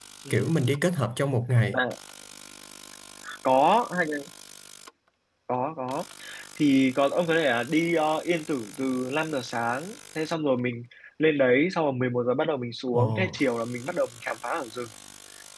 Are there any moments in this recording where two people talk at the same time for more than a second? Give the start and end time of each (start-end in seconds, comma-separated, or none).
none